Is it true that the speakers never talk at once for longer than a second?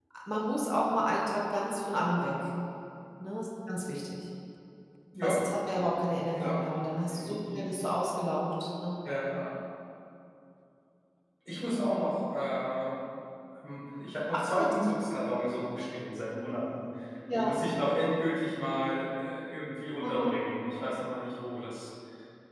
Yes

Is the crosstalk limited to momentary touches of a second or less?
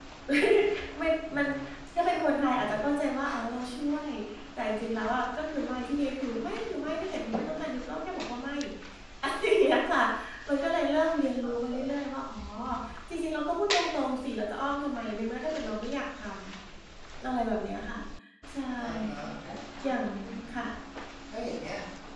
Yes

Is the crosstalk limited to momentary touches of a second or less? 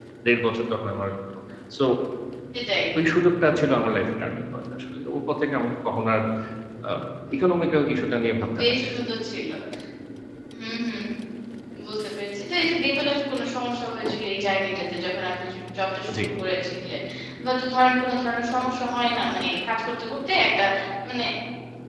Yes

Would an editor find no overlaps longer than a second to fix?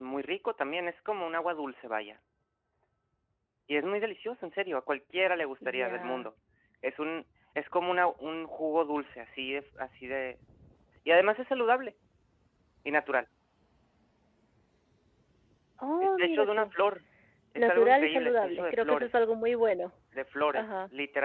No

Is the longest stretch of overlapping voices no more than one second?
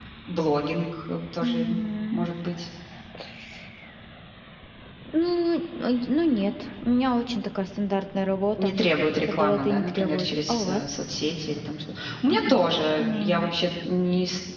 No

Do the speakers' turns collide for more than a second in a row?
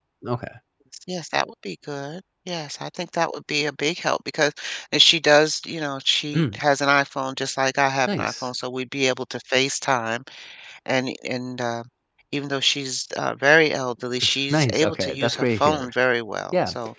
Yes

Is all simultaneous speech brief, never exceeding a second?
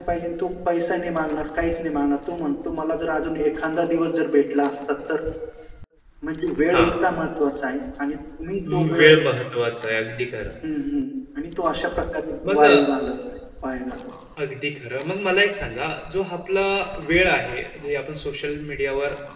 Yes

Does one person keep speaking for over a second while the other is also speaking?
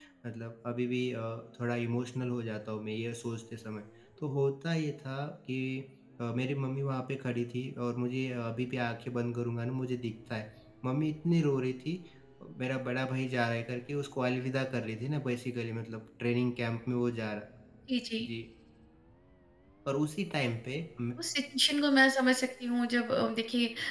No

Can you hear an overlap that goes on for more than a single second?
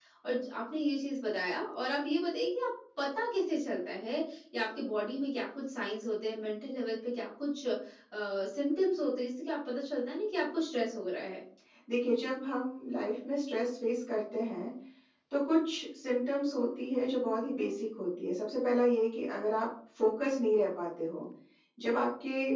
No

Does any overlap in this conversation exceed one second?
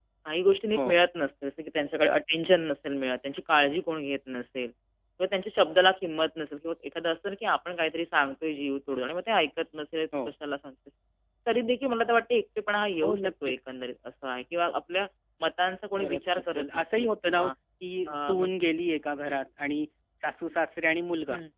Yes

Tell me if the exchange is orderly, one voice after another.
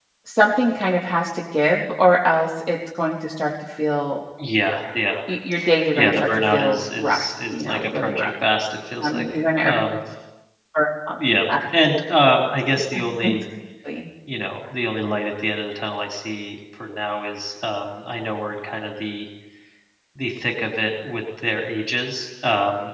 No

